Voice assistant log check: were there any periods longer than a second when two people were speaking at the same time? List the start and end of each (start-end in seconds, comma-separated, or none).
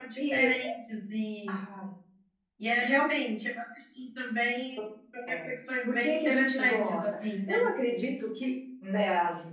5.9-7.7